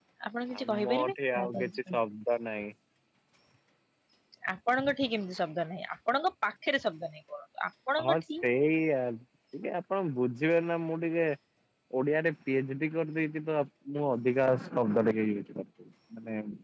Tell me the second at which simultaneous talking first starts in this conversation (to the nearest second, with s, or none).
1 s